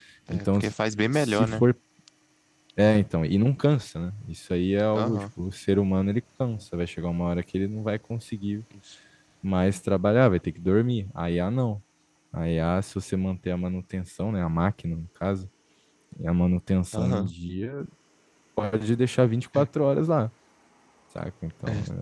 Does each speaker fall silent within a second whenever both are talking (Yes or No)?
Yes